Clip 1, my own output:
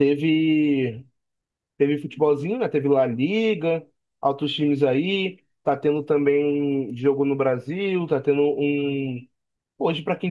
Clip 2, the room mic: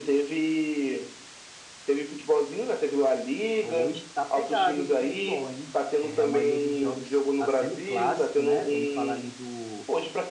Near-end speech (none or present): present